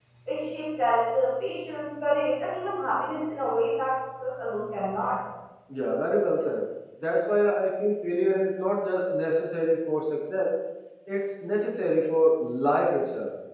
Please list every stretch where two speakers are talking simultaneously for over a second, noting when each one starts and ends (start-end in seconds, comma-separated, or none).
none